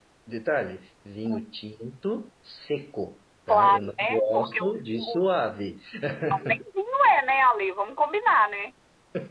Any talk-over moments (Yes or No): Yes